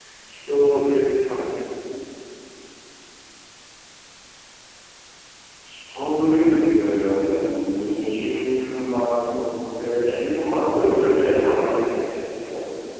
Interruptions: present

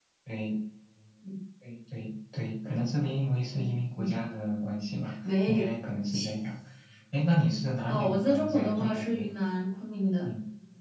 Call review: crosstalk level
present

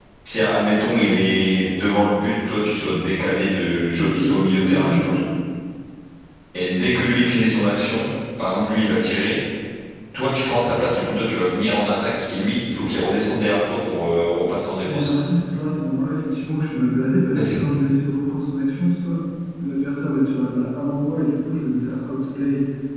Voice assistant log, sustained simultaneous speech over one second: none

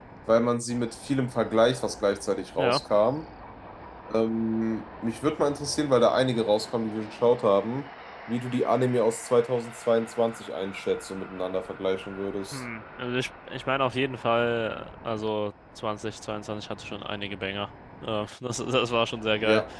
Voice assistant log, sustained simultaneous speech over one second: none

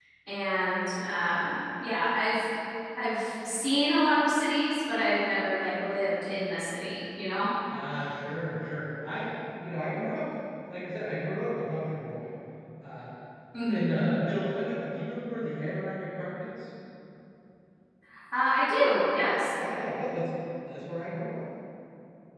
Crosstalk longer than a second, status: none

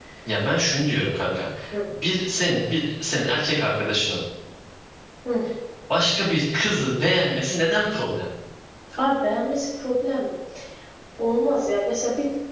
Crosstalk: none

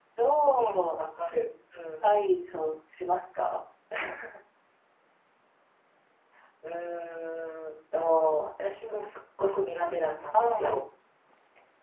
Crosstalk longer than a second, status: none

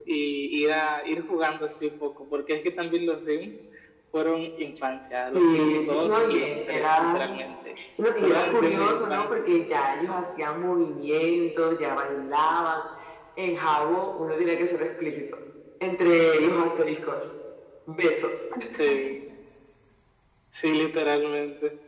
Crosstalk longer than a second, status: present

